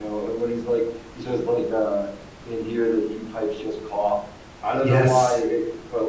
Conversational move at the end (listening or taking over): listening